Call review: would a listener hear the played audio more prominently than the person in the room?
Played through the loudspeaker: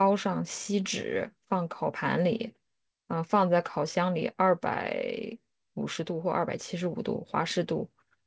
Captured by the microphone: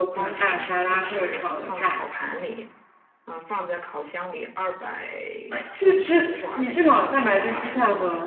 No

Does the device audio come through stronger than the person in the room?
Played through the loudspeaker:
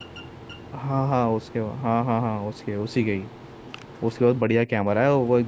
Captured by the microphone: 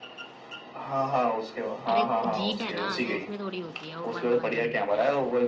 Yes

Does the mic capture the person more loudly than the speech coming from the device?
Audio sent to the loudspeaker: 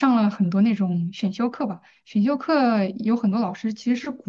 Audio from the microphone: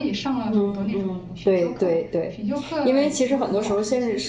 Yes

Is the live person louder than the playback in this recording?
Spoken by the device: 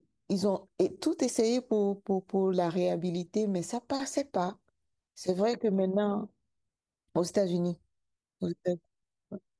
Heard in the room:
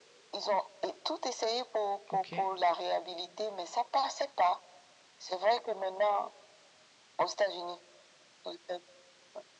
No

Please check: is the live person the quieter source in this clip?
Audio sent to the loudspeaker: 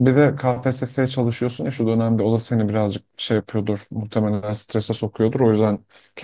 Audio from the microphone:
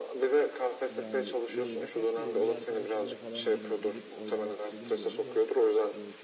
Yes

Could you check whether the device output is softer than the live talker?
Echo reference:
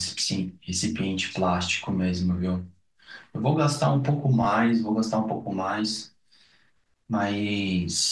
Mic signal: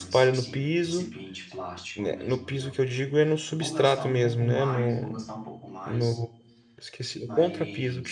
Yes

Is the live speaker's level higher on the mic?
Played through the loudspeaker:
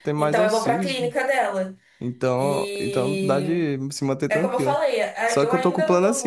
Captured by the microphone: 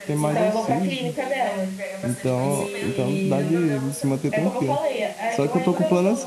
No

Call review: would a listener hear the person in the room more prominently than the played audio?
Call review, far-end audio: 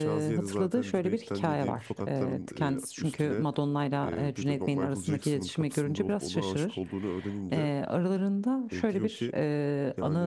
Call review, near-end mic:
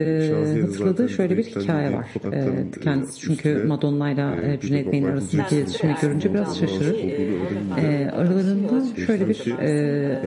No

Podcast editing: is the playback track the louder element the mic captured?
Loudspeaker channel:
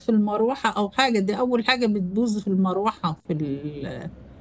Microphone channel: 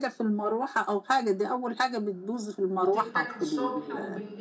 Yes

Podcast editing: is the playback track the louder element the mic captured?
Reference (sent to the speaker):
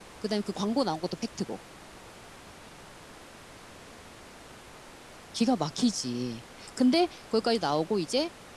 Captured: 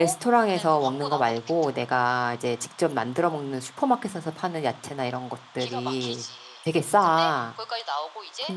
No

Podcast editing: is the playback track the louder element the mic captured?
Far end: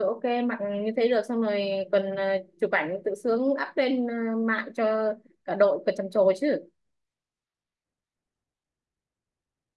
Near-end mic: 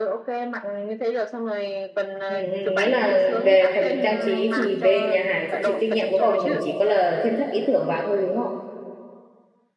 No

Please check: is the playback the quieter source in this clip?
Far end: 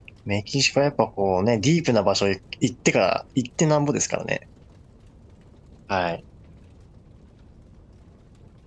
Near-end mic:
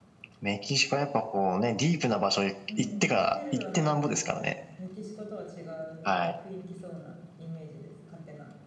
No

